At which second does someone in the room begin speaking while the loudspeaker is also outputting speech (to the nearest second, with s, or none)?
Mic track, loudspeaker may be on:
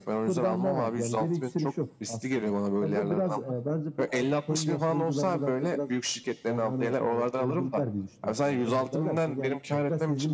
9 s